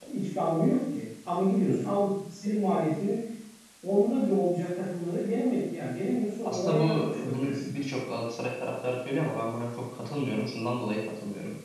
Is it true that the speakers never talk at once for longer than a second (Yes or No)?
No